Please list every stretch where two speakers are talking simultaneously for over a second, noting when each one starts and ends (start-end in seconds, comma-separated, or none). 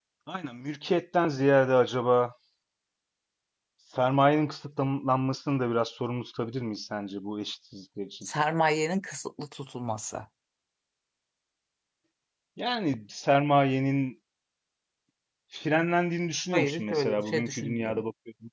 16.5-18.0